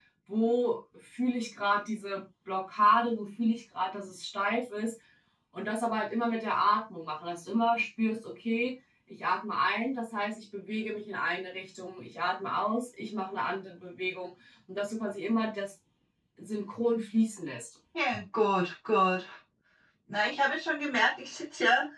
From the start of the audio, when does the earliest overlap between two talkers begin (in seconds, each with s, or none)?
none